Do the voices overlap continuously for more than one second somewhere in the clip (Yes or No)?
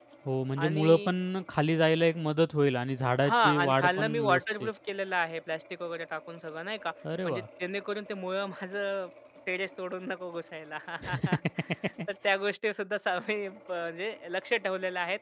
Yes